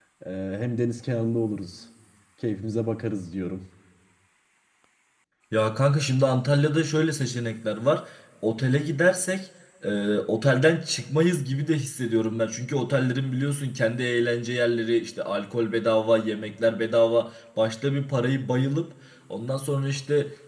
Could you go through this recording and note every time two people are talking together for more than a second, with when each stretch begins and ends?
none

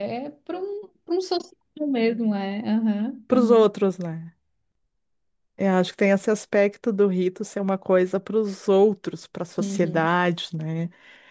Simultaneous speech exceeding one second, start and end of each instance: none

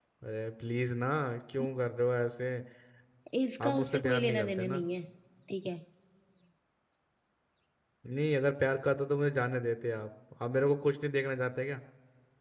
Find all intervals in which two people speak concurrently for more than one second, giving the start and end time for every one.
3.6-4.8

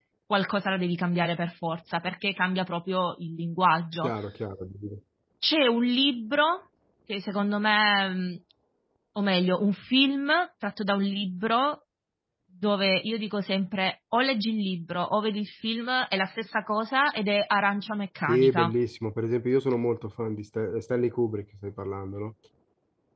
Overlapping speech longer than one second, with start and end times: none

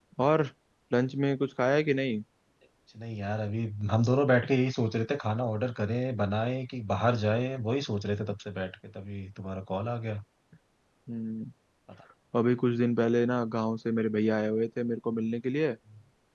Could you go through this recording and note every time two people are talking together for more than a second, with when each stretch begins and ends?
none

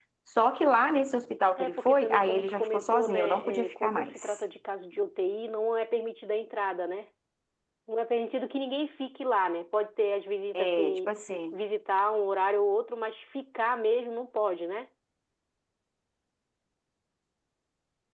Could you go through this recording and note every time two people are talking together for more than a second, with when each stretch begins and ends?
1.6-4.1

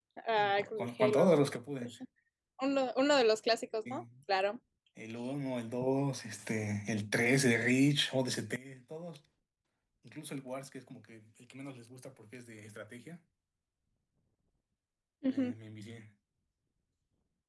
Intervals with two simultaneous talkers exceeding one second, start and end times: none

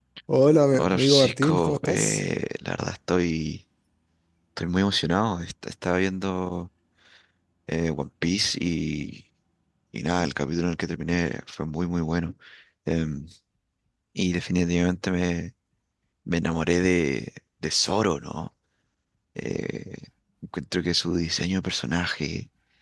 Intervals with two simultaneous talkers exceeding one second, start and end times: 0.8-2.2

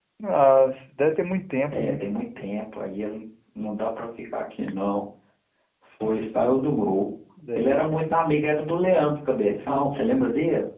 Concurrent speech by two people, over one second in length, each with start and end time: none

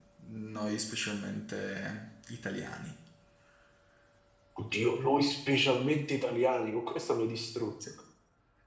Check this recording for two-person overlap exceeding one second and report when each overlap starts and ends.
none

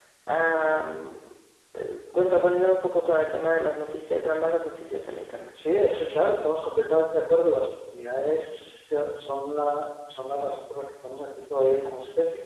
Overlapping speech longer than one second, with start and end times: none

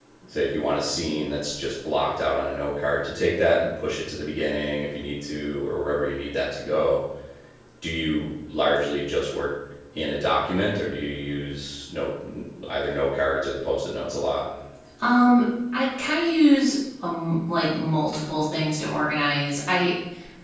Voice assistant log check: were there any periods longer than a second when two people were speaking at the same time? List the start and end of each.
none

